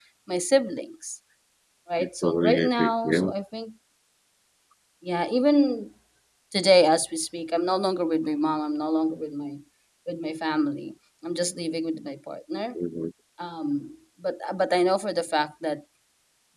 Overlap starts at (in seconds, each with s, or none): 2.0 s